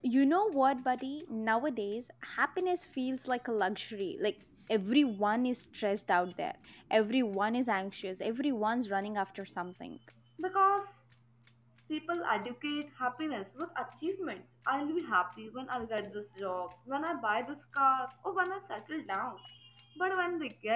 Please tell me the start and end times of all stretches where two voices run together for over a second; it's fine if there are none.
none

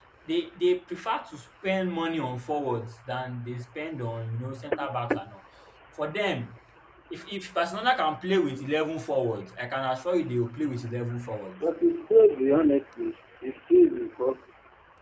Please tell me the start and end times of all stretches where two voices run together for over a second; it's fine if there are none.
none

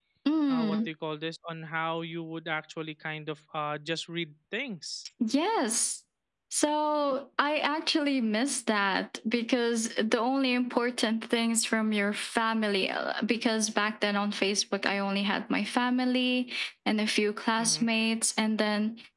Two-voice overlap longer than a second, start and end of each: none

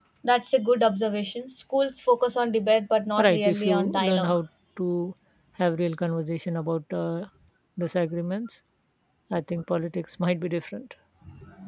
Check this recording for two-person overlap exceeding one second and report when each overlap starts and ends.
3.2-4.4

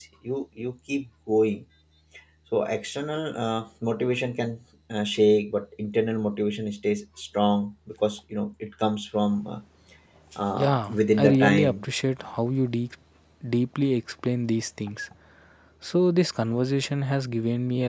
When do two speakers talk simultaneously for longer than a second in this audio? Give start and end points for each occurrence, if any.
10.6-11.8

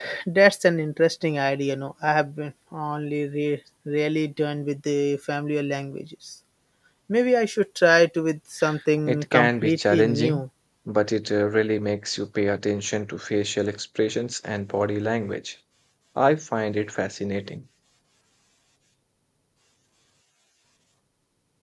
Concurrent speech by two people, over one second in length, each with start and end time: 9.1-10.4

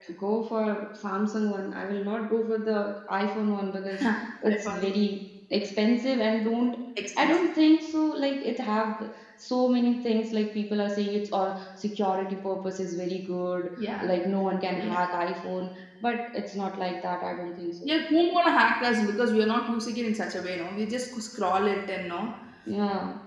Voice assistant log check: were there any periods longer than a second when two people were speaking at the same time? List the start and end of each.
none

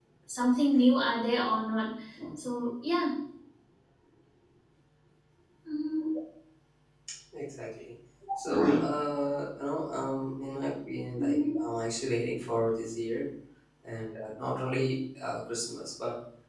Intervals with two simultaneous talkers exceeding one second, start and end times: none

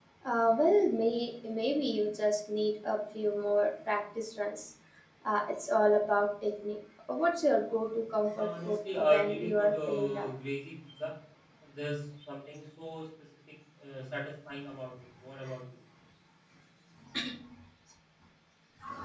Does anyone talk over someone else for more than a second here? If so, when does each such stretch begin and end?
8.4-10.3

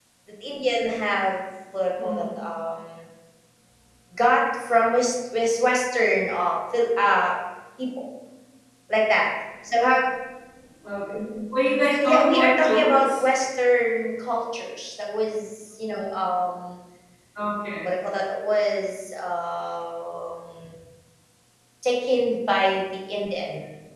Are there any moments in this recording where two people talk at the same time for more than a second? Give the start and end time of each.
12.0-13.2

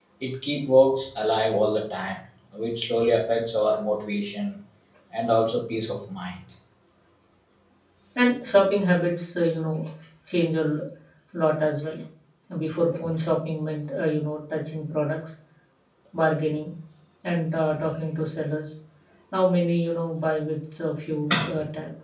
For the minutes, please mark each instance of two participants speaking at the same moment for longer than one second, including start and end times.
none

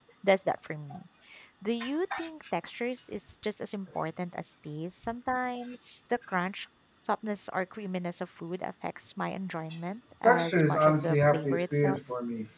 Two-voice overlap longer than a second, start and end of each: 10.2-12.0

